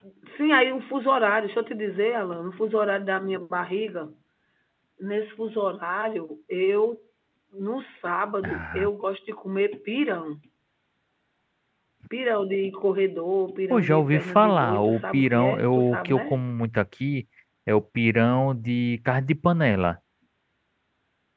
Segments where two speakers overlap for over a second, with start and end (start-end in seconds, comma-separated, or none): 13.7-16.4